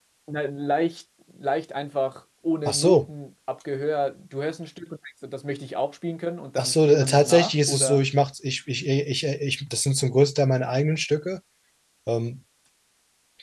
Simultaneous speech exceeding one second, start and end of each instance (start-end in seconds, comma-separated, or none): 6.6-8.0